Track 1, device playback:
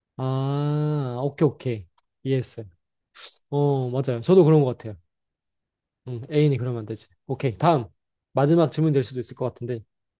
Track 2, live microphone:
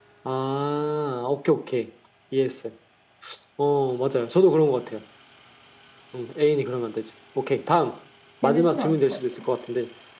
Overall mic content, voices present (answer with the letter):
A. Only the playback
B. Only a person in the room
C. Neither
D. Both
D